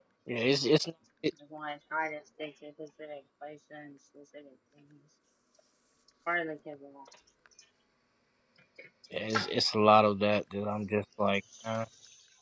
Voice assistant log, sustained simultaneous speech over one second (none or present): none